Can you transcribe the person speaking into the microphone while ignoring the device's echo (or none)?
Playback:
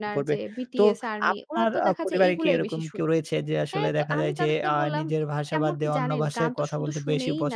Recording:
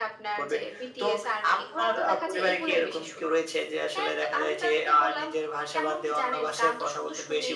none